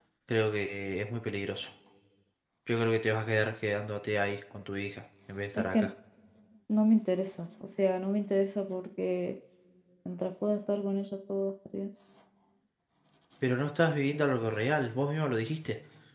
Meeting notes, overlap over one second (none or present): none